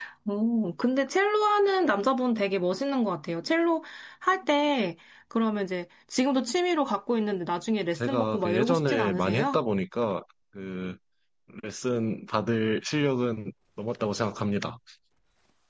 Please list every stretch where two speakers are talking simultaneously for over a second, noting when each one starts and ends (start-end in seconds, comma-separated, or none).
8.1-9.6